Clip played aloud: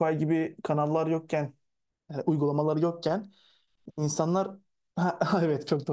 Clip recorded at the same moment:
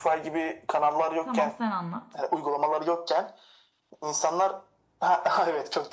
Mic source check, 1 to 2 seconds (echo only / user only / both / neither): both